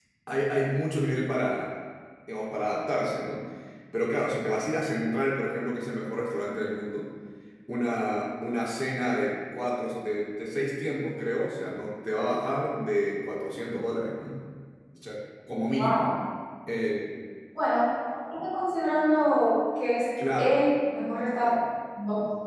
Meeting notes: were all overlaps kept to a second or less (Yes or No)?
Yes